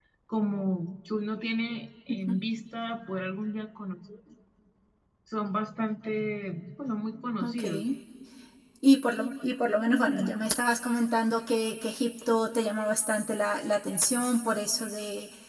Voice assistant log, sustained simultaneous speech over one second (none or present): none